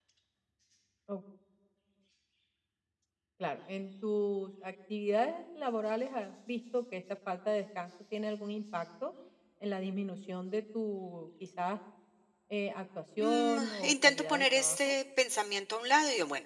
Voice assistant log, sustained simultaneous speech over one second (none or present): present